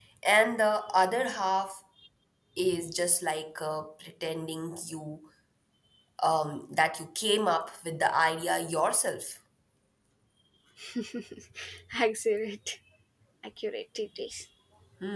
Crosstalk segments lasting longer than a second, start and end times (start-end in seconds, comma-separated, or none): none